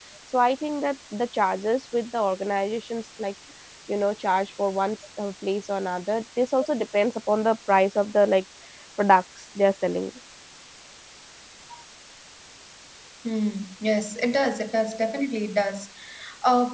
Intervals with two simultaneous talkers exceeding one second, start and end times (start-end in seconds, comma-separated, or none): none